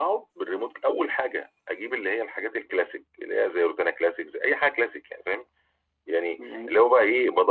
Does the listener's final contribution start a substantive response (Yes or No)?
No